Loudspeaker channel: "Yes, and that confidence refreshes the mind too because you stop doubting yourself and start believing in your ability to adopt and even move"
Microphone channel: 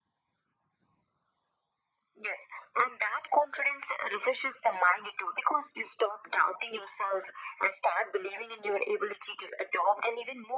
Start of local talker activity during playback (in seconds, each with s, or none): none